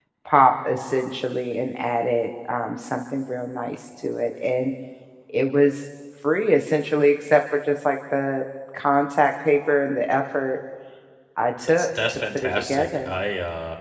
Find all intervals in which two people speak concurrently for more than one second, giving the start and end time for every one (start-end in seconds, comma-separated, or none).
11.8-13.1